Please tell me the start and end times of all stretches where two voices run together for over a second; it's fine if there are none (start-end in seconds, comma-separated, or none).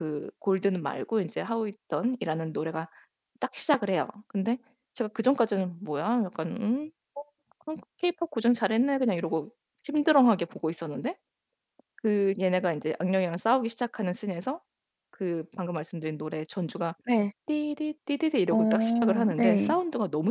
18.5-19.7